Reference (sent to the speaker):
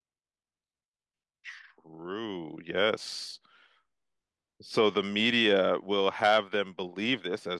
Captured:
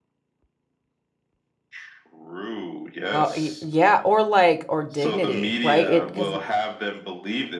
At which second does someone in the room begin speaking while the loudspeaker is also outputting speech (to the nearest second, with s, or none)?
3 s